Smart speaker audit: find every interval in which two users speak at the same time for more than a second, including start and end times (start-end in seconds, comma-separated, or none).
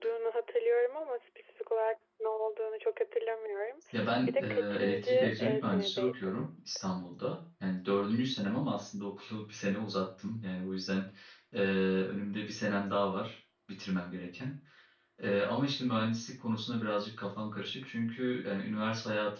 4.3-6.5